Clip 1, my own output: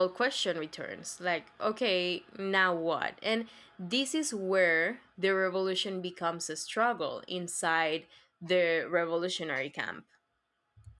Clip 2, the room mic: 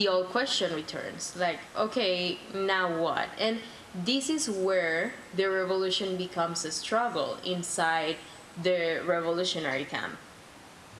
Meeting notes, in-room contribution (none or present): none